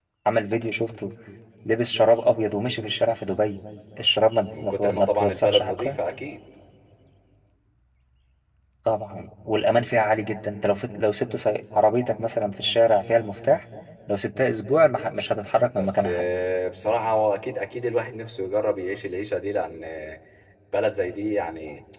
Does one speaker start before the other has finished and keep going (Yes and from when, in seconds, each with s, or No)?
Yes, from 4.6 s